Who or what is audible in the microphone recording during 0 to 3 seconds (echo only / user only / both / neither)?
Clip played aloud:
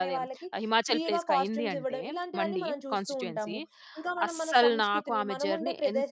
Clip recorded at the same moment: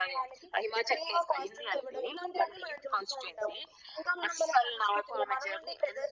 echo only